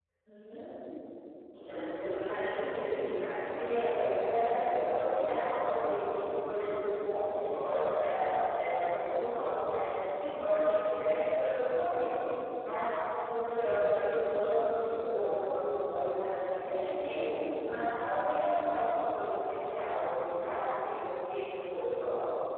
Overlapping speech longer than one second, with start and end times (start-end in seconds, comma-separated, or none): none